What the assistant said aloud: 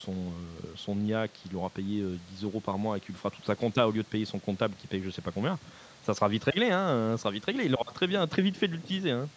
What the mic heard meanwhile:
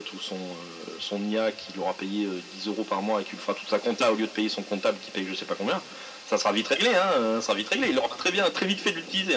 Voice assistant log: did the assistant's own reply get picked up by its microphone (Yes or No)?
Yes